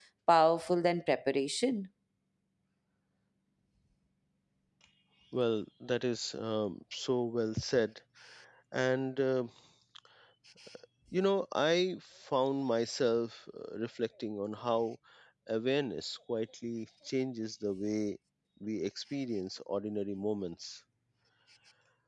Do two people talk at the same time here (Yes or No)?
No